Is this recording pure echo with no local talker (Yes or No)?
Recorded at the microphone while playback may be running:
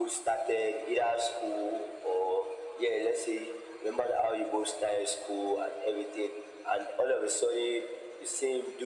Yes